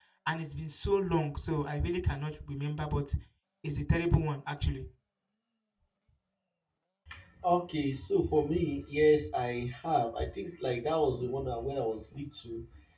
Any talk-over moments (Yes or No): No